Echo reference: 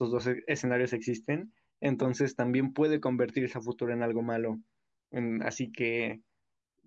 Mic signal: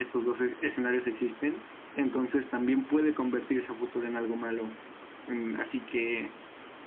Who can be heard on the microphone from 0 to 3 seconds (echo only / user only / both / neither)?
echo only